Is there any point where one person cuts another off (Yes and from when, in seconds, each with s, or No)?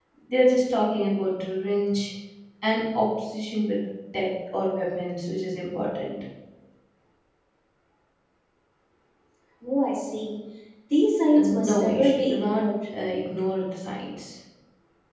Yes, from 11.3 s